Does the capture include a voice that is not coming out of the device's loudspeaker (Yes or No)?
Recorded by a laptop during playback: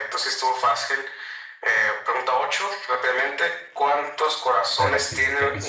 Yes